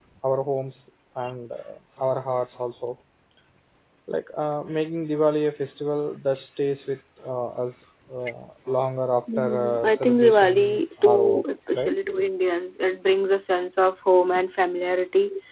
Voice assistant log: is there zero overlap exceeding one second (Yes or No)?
No